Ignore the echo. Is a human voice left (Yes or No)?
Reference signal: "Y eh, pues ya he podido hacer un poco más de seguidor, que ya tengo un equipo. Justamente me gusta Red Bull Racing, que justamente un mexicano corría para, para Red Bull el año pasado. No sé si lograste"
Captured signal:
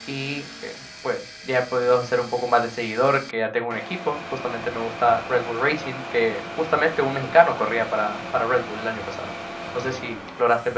No